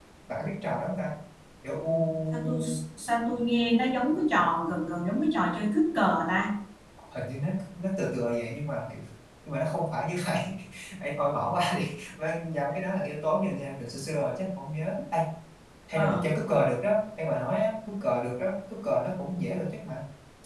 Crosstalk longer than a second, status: none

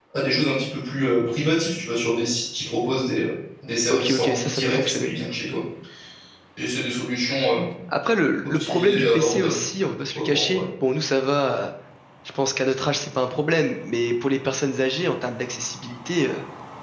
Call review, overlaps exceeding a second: present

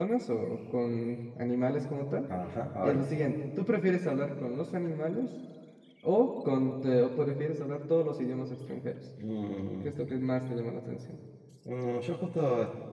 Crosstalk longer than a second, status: none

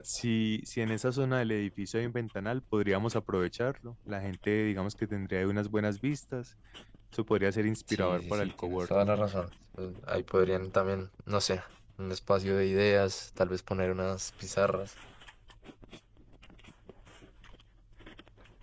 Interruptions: present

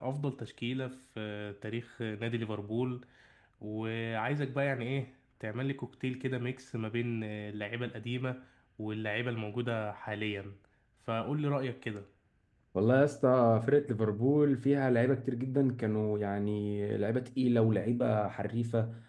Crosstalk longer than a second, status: none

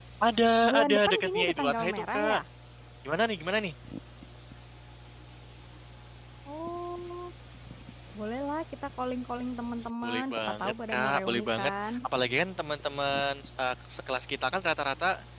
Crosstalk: present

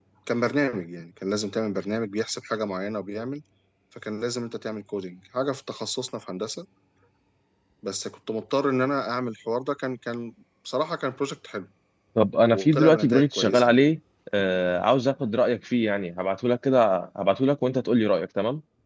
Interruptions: present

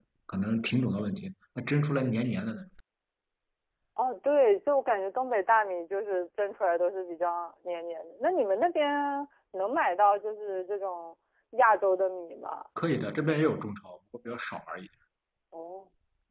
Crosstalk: none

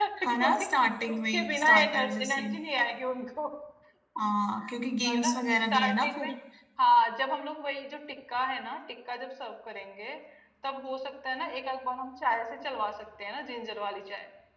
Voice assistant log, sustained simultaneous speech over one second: present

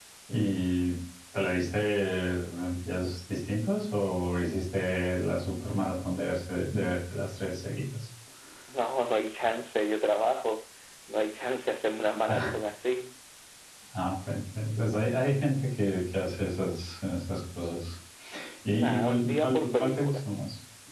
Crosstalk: present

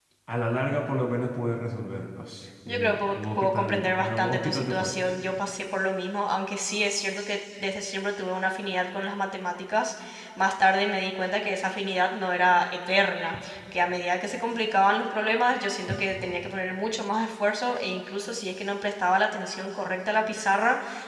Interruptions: present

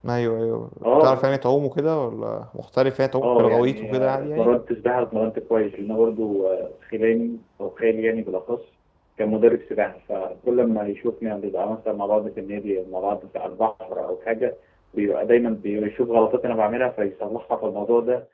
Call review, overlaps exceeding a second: present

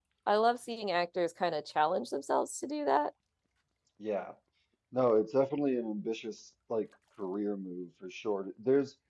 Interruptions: none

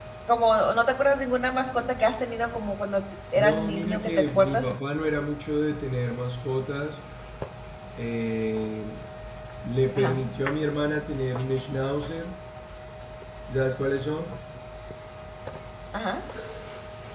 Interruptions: present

